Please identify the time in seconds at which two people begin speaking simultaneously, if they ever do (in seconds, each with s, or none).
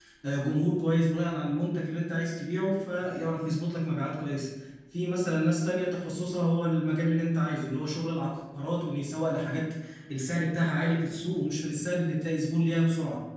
none